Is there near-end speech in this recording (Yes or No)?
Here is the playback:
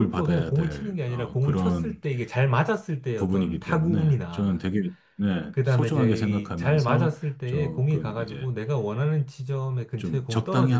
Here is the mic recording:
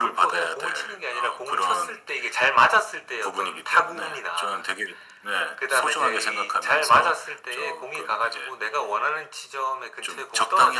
No